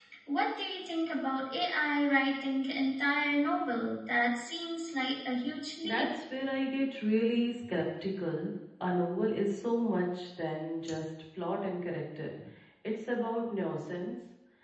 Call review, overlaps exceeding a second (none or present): none